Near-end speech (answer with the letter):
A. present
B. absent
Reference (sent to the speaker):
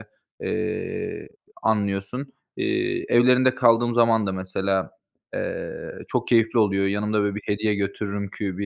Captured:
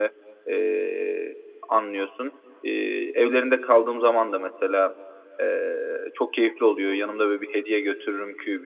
B